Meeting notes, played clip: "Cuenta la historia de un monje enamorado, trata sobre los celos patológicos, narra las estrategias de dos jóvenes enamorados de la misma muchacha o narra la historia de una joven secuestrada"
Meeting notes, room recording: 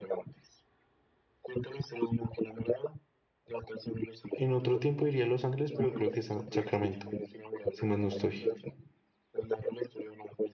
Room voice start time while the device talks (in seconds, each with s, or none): 4.4 s